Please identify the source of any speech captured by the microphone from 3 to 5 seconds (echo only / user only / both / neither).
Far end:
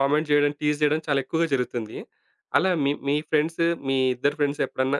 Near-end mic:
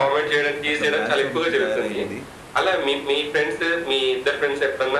echo only